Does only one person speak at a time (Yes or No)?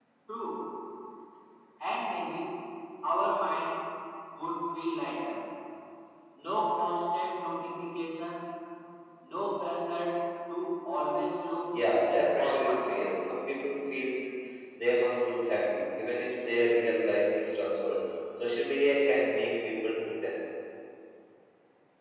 No